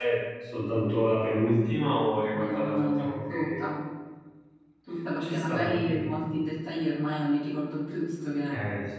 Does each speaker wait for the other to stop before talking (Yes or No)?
No